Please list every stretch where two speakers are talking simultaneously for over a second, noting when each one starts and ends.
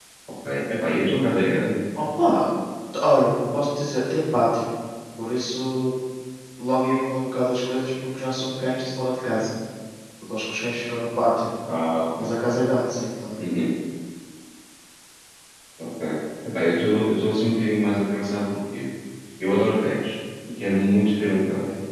none

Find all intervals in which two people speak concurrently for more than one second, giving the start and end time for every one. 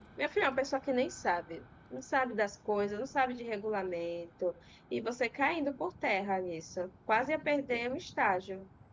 none

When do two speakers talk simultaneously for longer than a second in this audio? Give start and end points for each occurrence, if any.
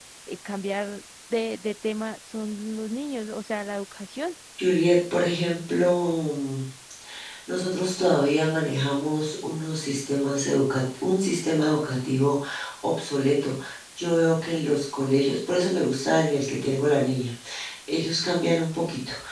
none

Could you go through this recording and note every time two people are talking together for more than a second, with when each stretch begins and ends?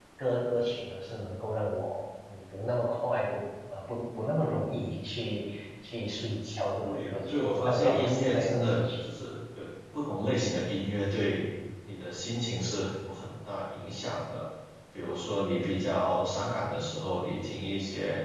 6.8-8.9

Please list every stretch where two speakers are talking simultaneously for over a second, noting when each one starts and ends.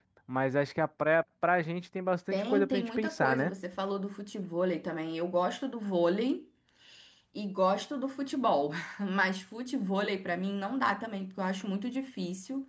2.3-3.5

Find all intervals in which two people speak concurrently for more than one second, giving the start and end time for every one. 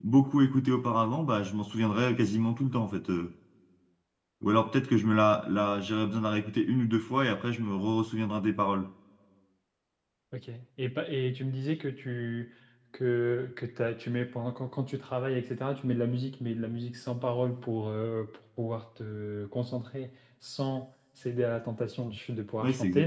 none

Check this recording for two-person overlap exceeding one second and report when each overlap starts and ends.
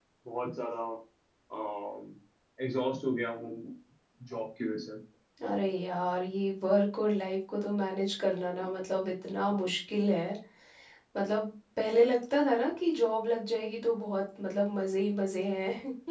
none

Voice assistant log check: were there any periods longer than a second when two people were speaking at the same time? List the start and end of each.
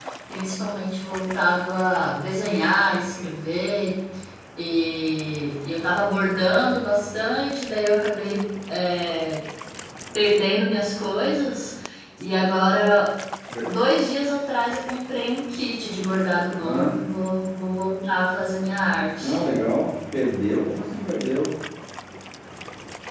none

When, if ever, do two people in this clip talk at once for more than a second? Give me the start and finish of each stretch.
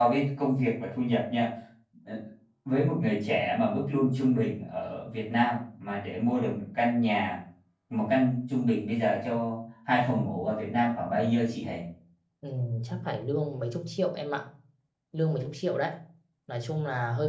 none

